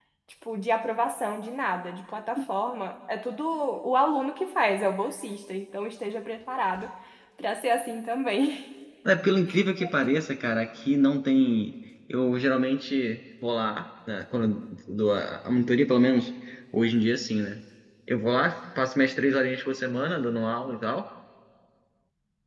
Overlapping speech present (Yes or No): No